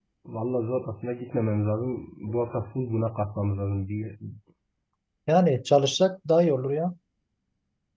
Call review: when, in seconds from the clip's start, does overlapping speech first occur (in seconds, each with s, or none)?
none